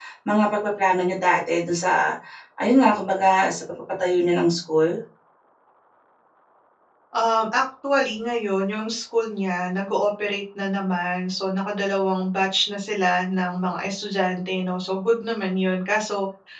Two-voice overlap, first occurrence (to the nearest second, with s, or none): none